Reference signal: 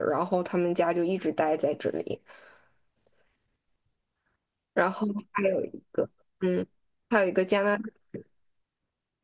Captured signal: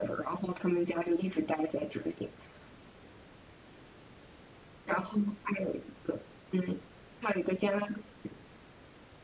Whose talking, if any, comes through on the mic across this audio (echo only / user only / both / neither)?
echo only